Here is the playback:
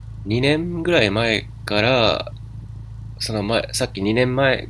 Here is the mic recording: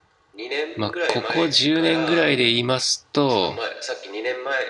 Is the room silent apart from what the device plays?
No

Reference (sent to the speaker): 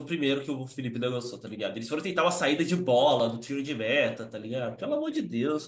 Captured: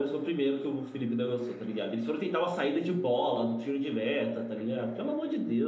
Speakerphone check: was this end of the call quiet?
Yes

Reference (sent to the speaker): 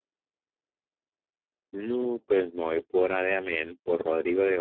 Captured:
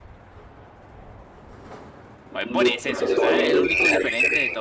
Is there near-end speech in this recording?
Yes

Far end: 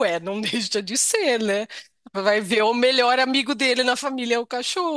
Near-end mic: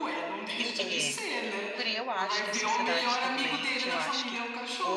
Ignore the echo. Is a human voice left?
Yes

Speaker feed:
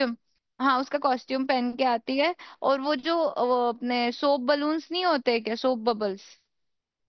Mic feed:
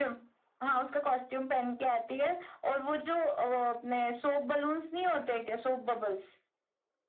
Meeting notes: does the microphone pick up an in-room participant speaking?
No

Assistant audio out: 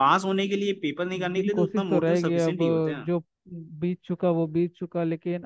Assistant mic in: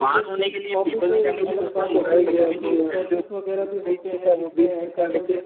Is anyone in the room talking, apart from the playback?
Yes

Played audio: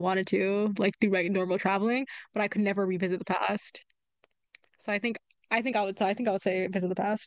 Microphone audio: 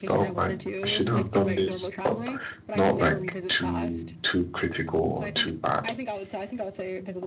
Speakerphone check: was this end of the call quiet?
No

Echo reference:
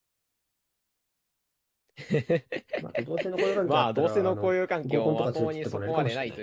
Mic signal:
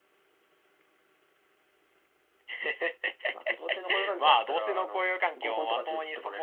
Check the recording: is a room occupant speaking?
No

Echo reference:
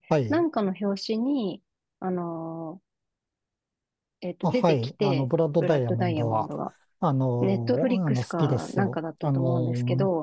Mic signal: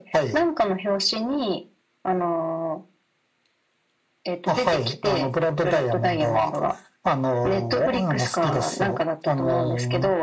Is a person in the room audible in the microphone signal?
No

